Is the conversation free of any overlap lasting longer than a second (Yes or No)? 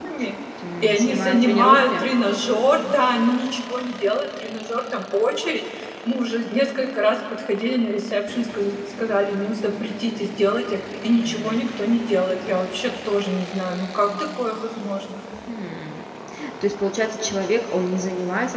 No